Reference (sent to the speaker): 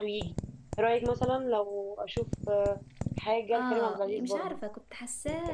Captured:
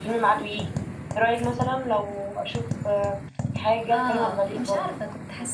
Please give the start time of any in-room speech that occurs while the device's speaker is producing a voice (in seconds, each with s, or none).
none